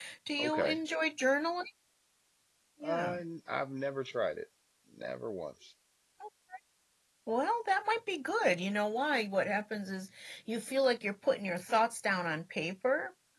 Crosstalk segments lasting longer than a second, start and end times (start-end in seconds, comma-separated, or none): none